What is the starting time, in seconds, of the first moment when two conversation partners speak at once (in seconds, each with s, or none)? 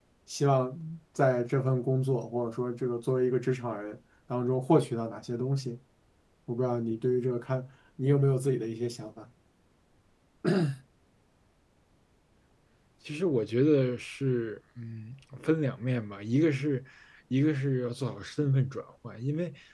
none